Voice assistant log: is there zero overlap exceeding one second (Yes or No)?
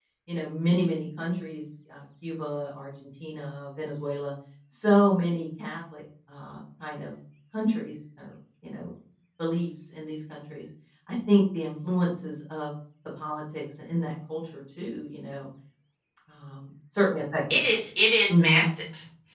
Yes